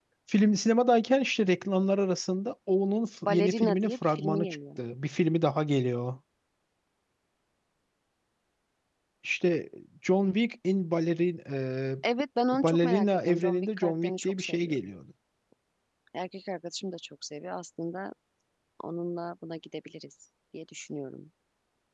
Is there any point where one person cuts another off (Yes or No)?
Yes